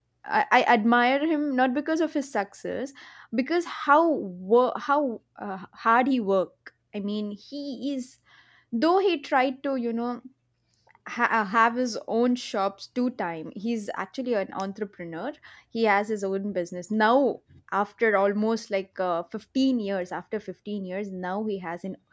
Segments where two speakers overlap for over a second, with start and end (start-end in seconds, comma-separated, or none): none